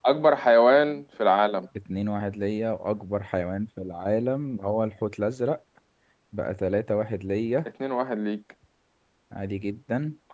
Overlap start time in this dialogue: none

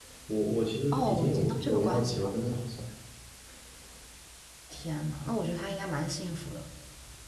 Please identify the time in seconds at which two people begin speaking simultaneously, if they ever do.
0.9 s

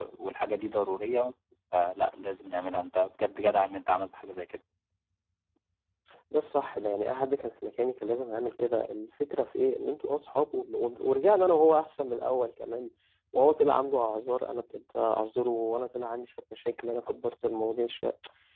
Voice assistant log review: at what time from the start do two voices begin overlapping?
none

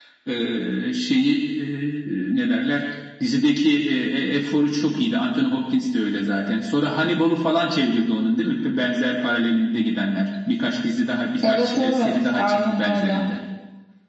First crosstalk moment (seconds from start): 11.4 s

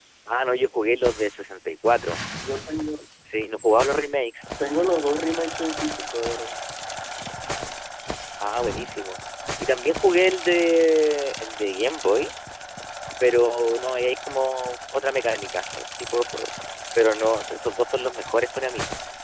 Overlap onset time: none

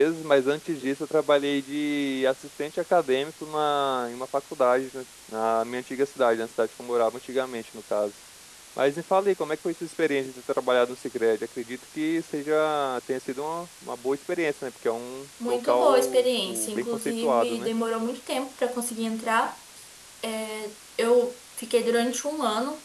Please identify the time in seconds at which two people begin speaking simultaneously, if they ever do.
15.4 s

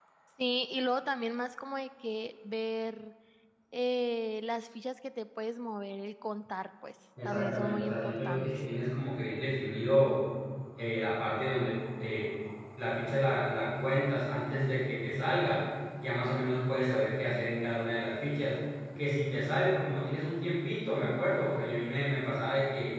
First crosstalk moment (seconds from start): 7.2 s

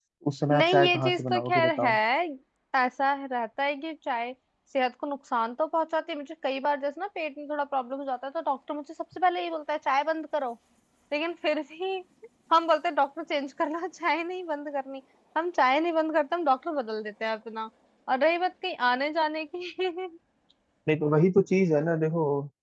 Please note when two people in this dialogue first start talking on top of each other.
0.5 s

